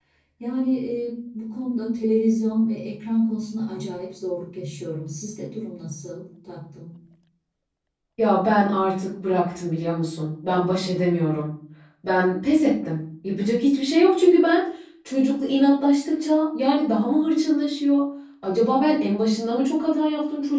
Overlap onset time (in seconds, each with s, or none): none